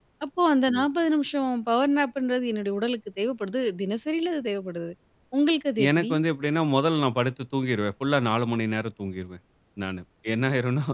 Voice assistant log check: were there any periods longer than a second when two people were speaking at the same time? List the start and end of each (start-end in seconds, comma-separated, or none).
none